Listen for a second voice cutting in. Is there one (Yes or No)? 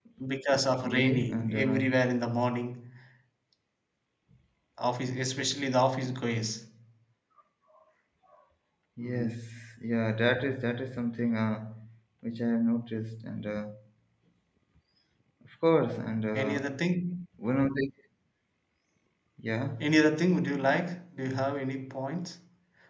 Yes